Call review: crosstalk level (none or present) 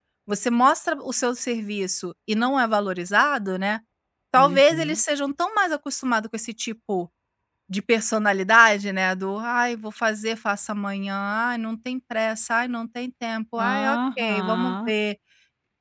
present